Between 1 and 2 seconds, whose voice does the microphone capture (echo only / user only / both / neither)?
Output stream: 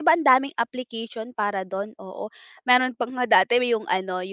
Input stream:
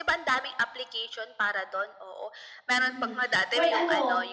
echo only